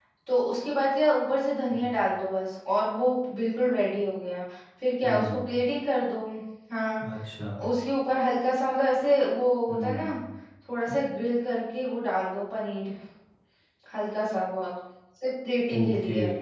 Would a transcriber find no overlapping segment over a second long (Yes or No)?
Yes